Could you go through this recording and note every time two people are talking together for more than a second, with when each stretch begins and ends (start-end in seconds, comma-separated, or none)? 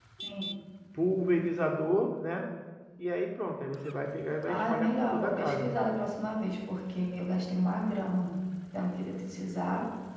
4.4-5.7